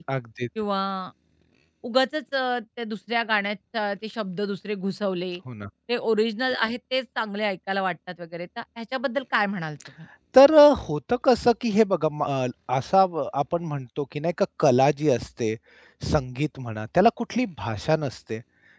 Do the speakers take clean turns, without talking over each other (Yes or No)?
Yes